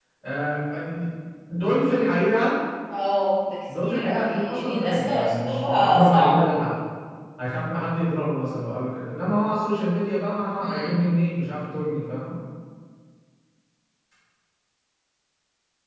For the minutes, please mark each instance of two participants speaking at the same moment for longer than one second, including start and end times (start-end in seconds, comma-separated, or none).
3.8-6.4